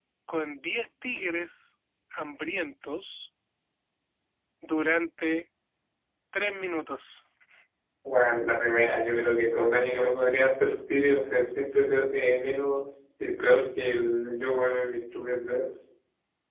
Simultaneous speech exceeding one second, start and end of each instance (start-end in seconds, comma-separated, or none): none